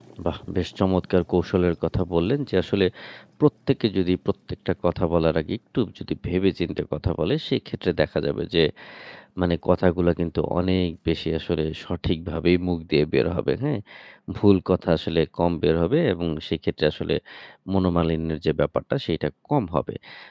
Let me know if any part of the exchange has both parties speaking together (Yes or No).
No